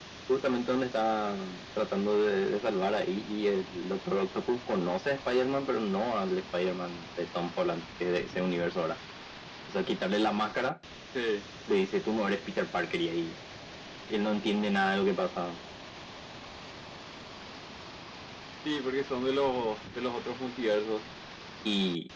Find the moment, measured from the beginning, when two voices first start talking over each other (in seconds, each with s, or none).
none